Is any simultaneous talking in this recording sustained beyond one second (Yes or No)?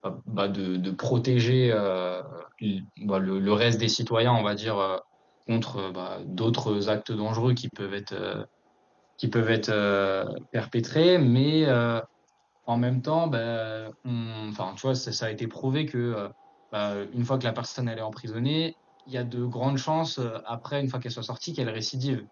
No